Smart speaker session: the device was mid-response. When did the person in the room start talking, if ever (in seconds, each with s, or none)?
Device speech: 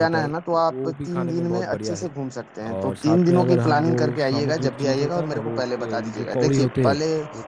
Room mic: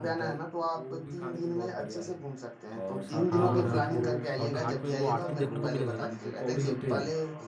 3.3 s